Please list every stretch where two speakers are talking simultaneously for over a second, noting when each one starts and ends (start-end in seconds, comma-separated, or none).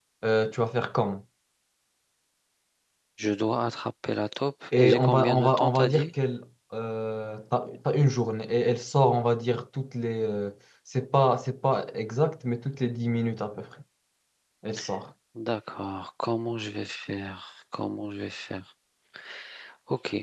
4.7-6.1